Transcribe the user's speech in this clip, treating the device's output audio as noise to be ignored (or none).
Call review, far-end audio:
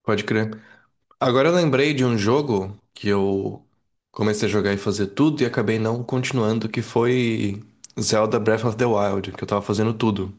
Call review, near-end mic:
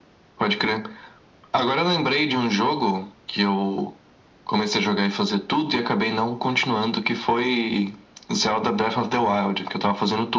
none